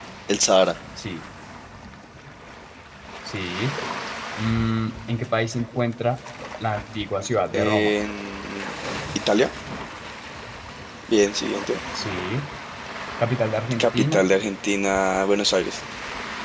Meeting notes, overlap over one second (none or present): none